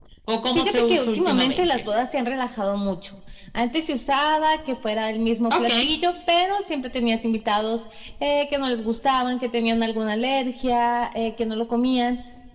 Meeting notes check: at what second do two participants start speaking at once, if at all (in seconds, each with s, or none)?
0.5 s